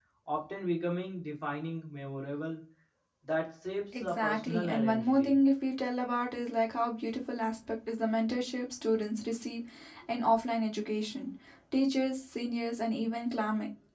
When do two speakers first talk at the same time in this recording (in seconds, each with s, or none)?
3.9 s